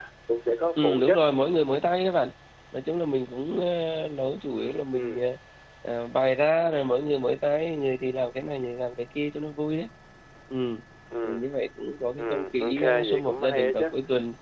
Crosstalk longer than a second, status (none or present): present